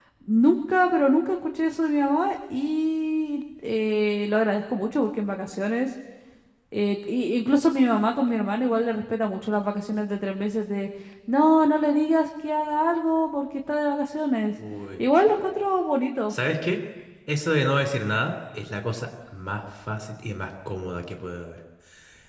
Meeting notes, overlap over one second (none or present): none